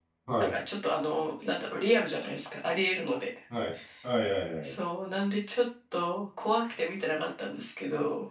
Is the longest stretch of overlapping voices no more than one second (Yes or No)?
Yes